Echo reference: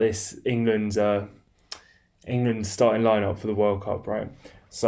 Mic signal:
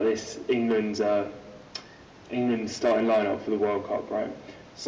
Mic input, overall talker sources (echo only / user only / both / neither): echo only